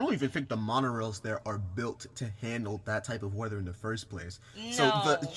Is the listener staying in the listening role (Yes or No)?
Yes